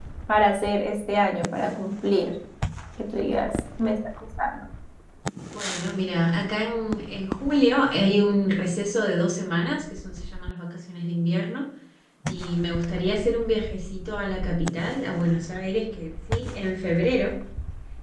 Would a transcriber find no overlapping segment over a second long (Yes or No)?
Yes